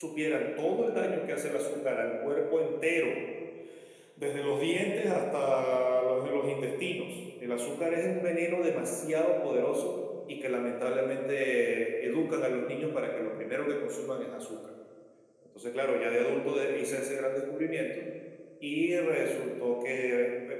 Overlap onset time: none

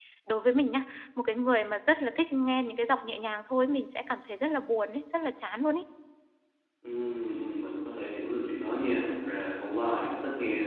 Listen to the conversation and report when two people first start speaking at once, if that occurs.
none

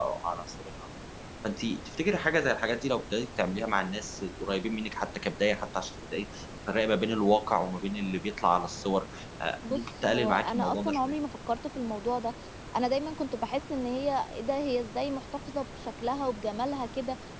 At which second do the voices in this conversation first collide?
10 s

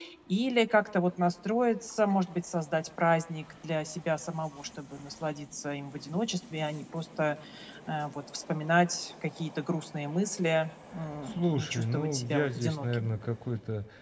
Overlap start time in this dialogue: 11 s

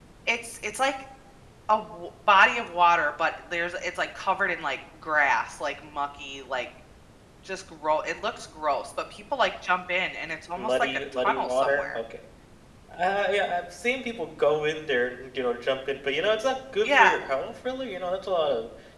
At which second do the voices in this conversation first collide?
11 s

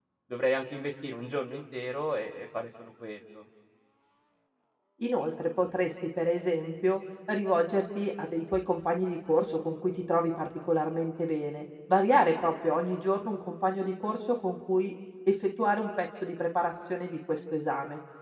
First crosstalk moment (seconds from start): none

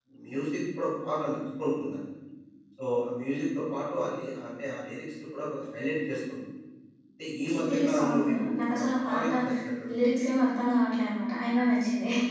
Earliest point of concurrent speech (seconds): 7 s

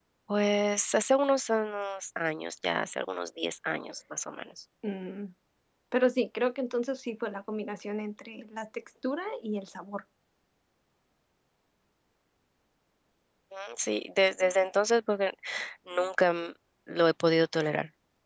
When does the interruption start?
none

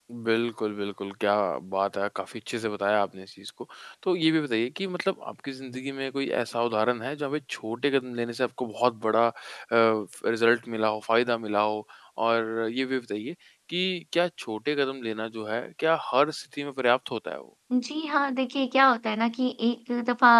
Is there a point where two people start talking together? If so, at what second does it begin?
none

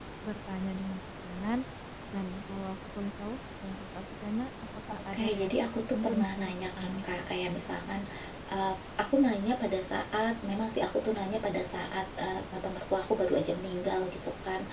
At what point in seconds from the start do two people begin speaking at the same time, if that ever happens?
5 s

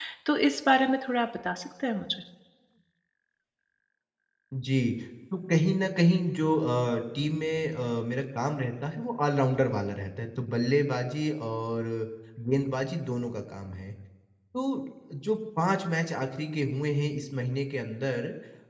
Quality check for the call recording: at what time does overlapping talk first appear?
none

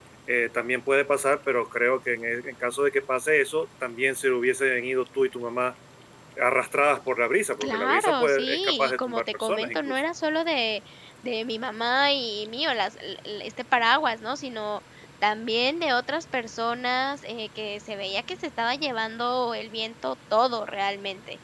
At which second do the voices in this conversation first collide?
8 s

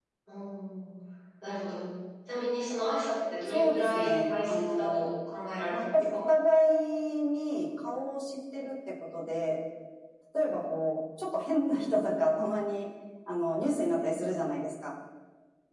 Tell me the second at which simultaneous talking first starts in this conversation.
3 s

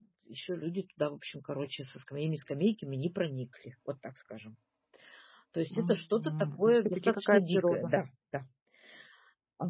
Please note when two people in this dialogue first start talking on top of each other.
6 s

